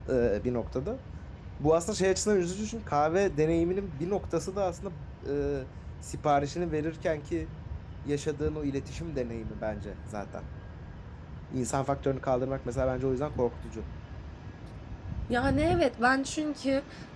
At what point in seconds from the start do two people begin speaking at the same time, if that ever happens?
none

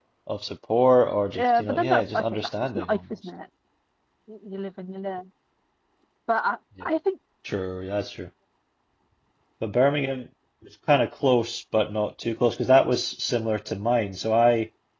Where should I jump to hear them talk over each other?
1 s

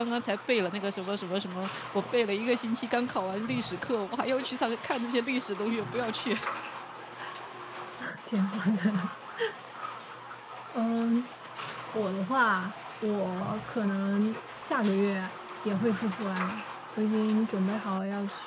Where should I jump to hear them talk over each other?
none

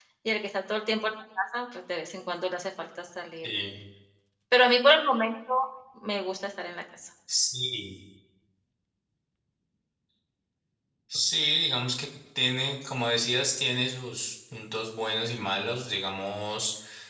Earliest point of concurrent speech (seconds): none

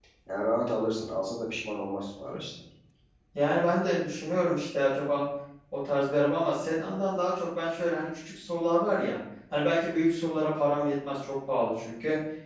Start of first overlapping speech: none

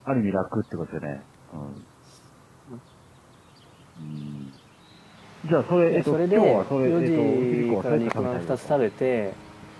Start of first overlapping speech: 6 s

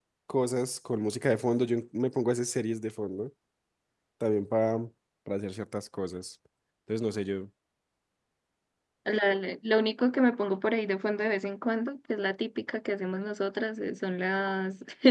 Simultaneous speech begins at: none

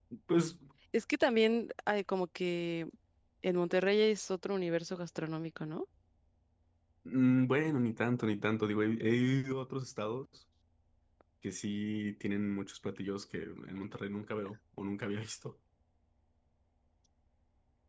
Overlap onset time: none

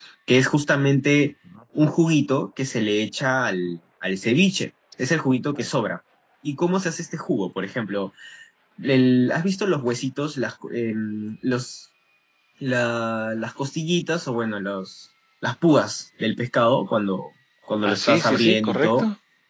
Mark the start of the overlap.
18 s

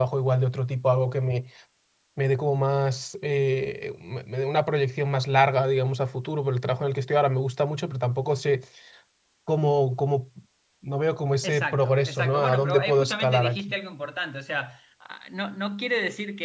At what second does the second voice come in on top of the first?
11 s

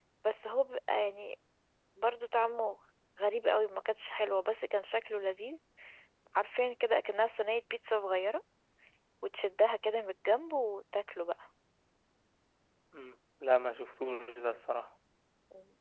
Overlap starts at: none

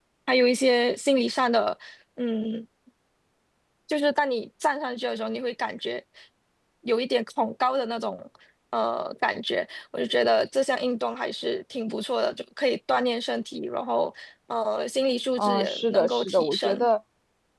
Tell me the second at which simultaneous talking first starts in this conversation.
15 s

